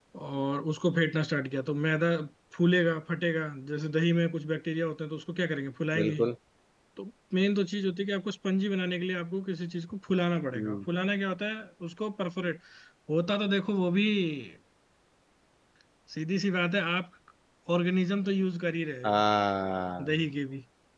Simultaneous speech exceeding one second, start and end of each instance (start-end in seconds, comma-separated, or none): none